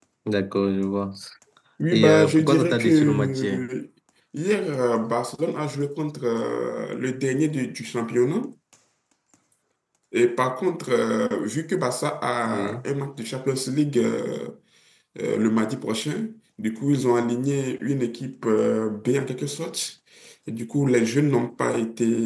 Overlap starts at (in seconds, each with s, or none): 1.9 s